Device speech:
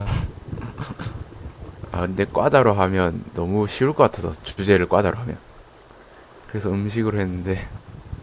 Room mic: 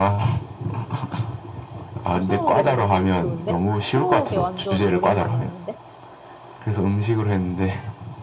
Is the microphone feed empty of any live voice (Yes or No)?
No